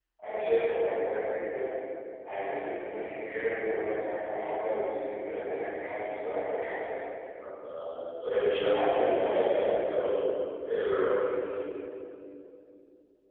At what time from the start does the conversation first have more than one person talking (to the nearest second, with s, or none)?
8 s